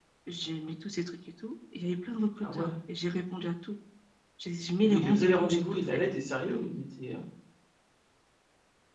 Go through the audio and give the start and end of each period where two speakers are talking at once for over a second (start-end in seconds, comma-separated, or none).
4.8-6.0